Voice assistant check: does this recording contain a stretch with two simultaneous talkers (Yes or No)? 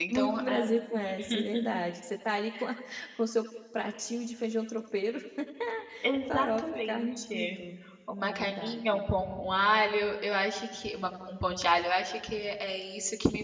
Yes